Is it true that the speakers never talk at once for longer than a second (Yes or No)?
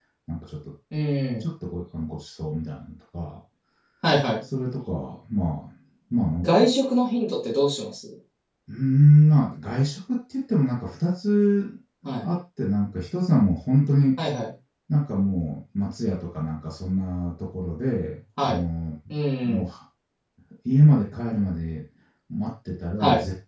Yes